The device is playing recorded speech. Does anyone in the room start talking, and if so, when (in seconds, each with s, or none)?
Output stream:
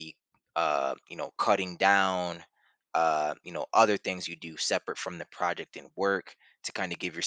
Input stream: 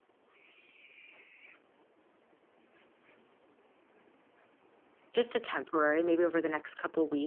5.1 s